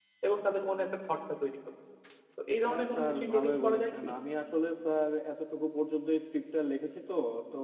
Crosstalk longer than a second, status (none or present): present